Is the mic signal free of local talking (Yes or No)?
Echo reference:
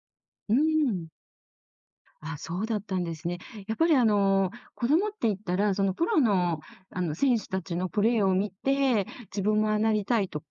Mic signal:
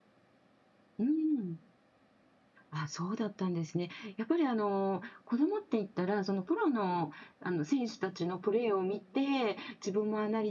Yes